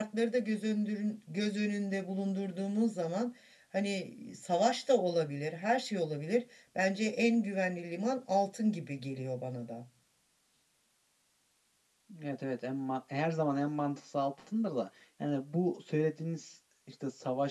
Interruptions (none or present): none